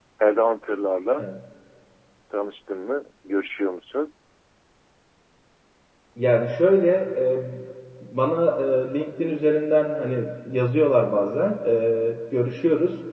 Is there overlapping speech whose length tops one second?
No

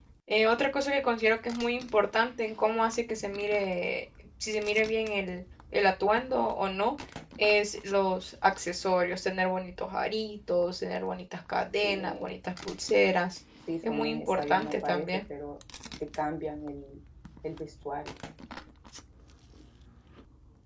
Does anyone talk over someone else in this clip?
Yes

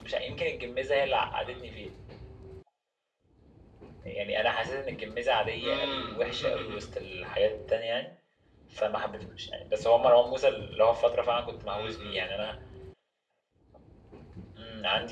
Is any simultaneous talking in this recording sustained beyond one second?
Yes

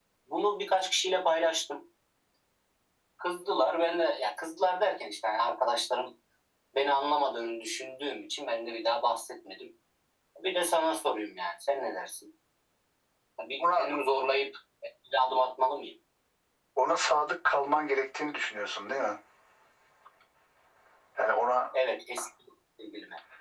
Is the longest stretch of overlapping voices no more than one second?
Yes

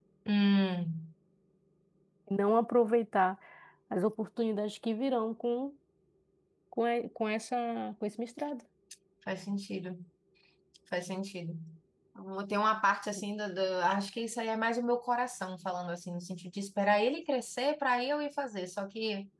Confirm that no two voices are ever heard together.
Yes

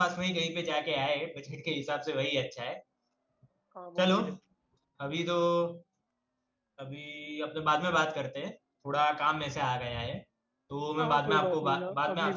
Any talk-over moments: Yes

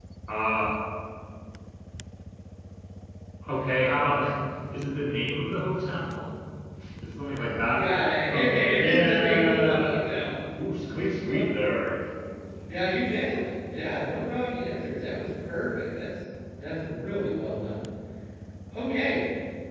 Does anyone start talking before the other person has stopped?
Yes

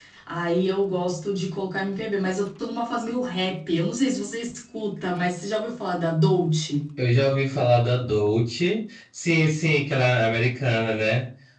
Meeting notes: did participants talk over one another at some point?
No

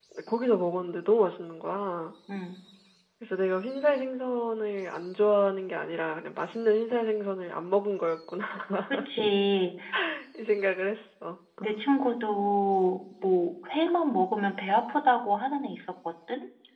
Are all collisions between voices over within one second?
Yes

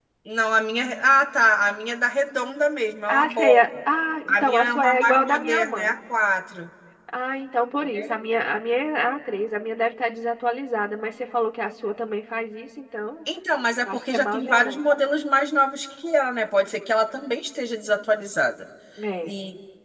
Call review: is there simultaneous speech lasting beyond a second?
Yes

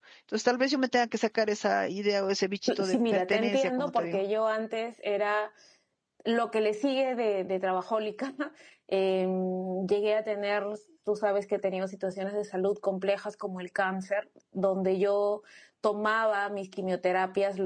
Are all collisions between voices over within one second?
No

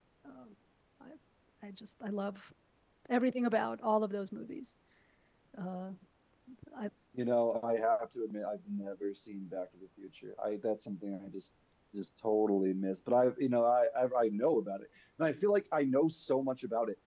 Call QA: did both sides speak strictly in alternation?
Yes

